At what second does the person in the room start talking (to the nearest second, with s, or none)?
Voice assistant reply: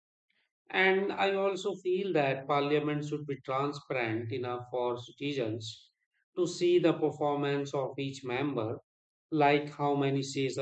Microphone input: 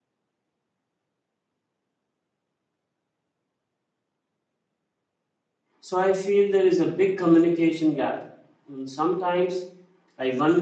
6 s